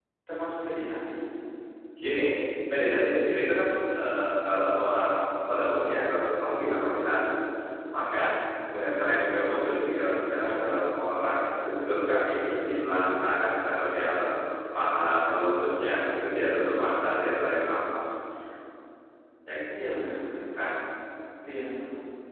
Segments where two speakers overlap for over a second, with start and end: none

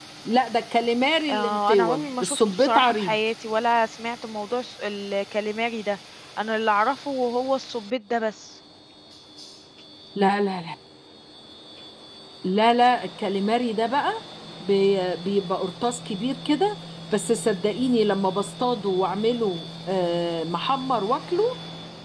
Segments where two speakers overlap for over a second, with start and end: 1.3-3.2

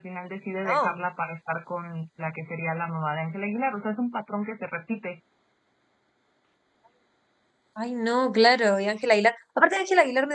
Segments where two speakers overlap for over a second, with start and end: none

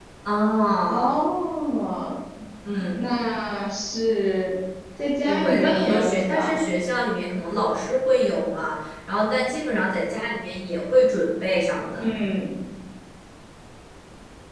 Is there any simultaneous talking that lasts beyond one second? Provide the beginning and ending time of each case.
5.2-6.6

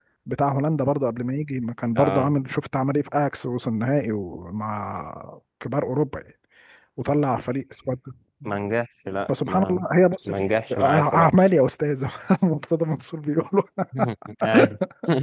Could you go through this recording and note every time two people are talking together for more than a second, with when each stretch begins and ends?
none

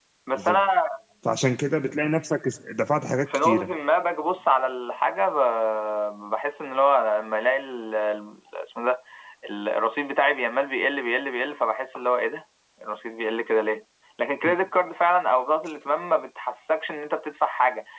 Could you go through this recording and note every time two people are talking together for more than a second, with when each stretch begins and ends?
none

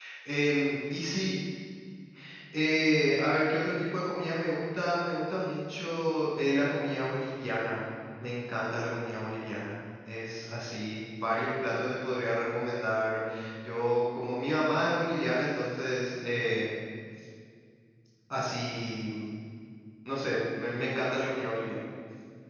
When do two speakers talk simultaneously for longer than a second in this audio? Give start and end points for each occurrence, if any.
none

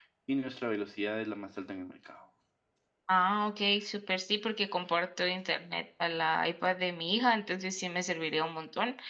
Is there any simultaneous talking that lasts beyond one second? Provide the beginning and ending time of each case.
none

